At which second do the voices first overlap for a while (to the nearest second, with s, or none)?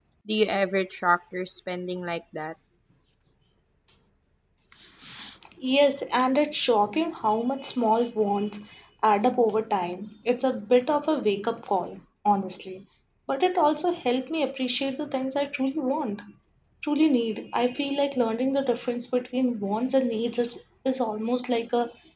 none